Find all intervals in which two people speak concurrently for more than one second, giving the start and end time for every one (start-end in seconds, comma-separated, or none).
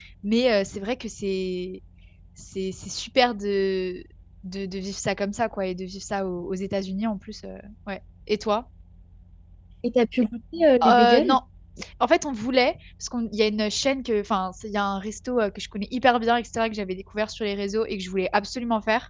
none